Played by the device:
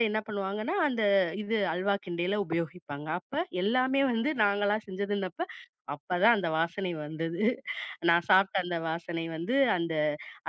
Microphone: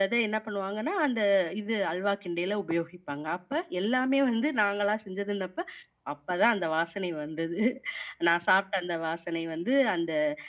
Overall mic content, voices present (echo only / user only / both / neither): echo only